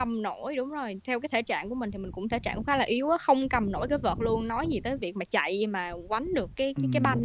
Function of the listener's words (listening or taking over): taking over